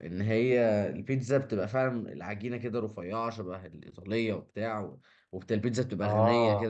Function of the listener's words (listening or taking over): listening